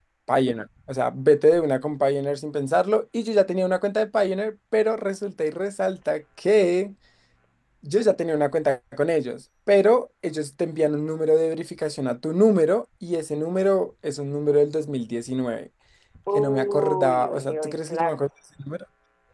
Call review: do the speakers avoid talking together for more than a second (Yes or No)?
No